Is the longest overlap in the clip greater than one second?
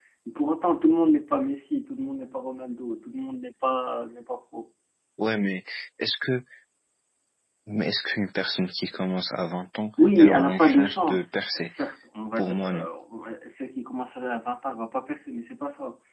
Yes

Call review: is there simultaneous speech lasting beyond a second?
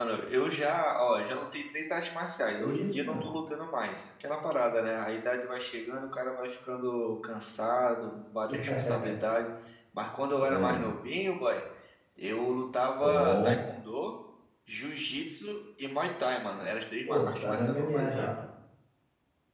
Yes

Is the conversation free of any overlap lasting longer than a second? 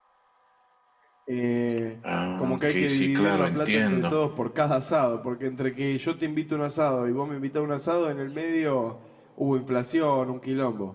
No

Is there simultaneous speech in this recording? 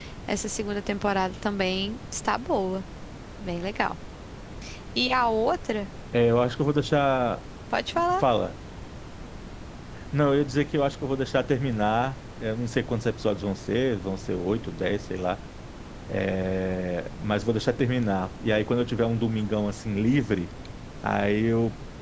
No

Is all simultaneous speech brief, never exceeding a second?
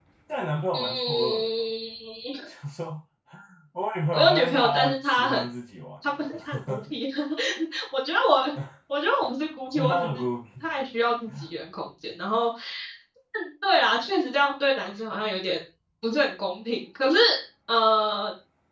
No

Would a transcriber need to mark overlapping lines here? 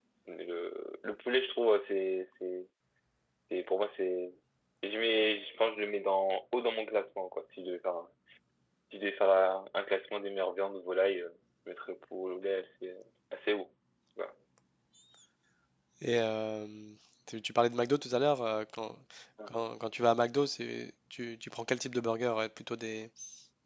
No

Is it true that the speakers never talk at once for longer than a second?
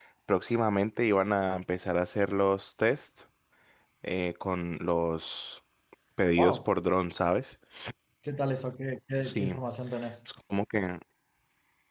Yes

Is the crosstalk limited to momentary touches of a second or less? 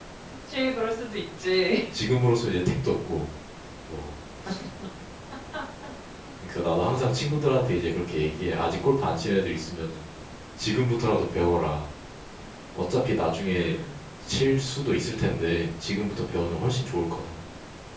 Yes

